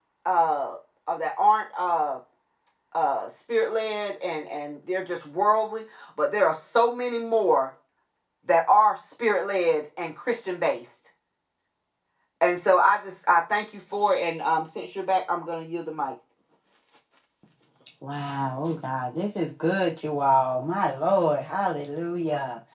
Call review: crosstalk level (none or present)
none